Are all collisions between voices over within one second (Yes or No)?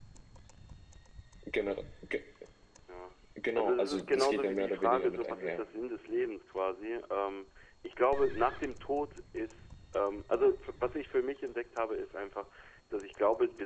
No